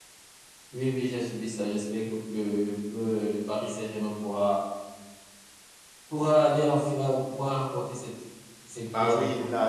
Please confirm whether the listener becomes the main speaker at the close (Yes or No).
Yes